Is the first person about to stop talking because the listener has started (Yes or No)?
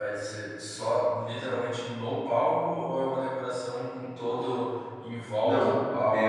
Yes